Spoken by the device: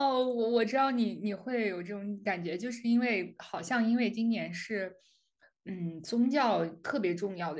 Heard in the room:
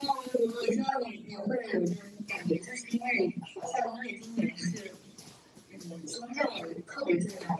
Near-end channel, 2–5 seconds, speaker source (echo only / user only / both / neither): echo only